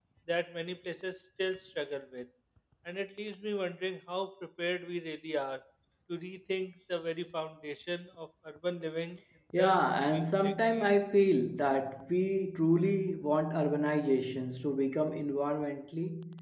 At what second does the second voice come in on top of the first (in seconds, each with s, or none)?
9.5 s